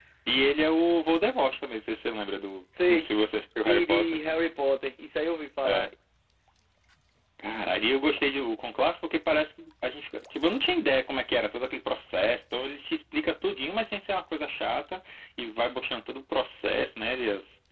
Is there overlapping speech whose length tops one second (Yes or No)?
No